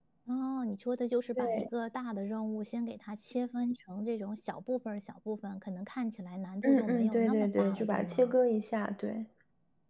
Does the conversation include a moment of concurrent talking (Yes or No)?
Yes